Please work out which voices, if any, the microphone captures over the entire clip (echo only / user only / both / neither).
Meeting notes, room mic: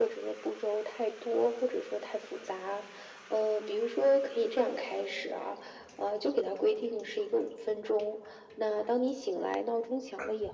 echo only